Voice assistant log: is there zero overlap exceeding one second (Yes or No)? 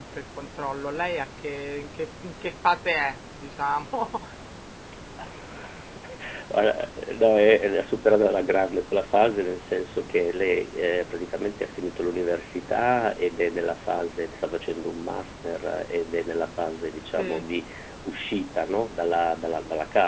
Yes